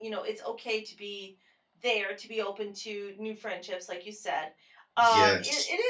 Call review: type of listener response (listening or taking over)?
listening